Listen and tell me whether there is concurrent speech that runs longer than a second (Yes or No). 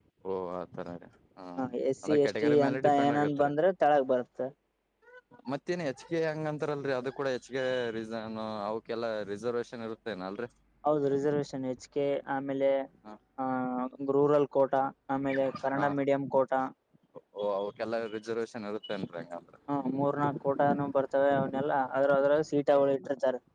Yes